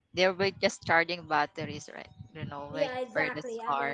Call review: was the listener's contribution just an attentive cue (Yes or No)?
No